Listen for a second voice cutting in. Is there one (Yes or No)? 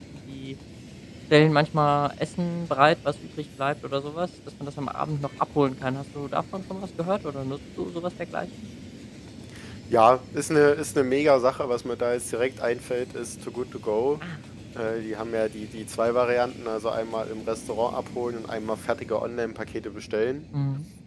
No